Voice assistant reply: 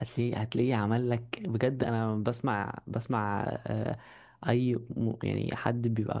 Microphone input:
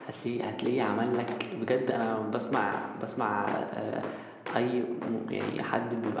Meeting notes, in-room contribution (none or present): none